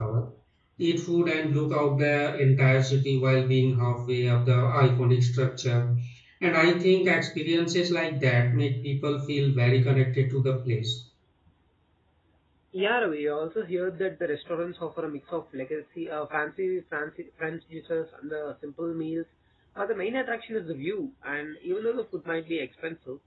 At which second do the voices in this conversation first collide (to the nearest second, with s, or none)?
none